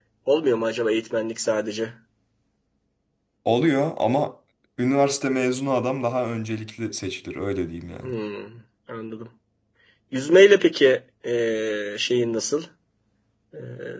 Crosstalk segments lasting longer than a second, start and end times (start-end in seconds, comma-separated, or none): none